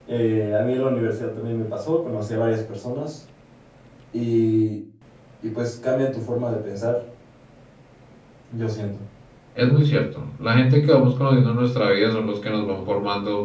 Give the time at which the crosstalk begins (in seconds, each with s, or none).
none